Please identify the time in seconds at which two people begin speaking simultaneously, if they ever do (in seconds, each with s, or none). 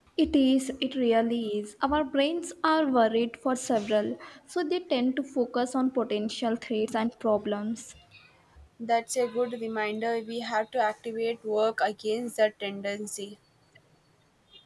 none